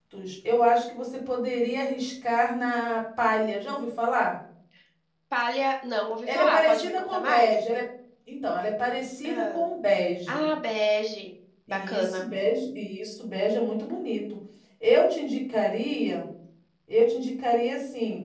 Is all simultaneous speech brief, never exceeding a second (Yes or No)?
No